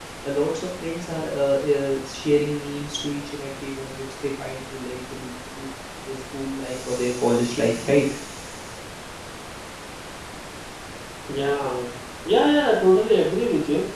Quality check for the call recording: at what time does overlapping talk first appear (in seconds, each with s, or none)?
none